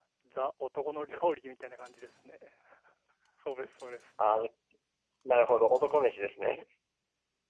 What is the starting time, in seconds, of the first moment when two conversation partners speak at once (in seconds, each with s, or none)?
none